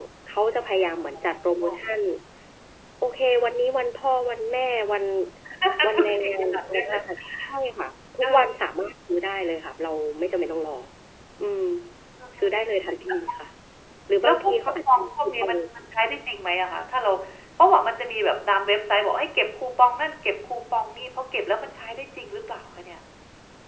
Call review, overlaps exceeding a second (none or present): present